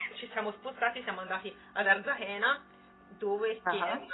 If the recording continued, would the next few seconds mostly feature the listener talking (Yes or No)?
No